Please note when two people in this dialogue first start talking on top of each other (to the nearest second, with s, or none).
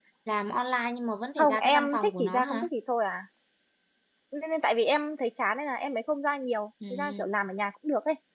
1 s